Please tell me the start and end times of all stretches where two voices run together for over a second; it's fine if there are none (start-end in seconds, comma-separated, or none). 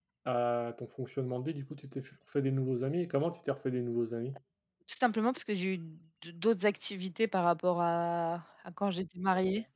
none